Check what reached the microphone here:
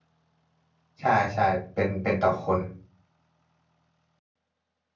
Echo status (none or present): none